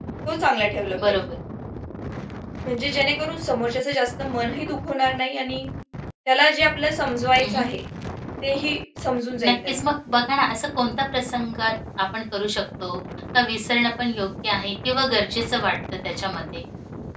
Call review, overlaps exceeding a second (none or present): none